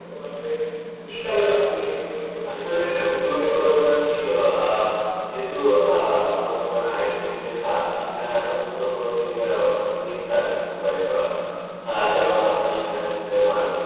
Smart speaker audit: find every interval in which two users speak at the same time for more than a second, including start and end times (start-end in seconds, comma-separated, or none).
2.5-3.8